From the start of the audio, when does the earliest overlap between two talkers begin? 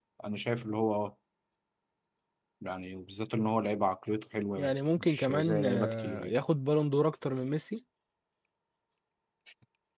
5 s

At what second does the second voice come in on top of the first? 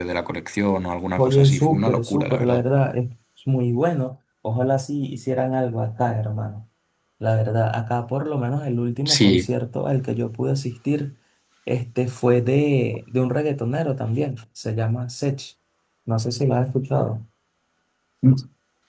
1 s

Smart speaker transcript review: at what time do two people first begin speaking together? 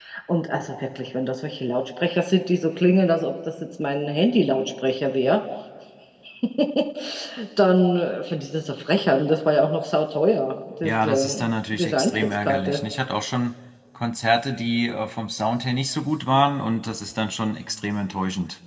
11 s

